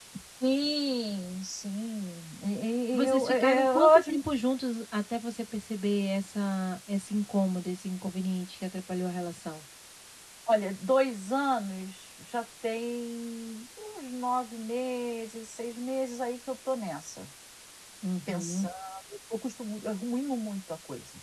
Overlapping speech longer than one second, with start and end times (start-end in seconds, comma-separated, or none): 2.9-4.2